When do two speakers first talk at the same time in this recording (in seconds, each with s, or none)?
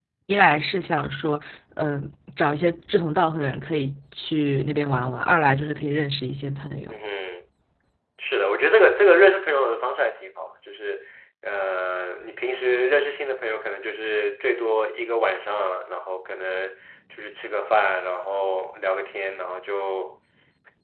none